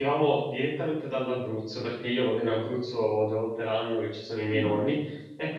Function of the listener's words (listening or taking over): listening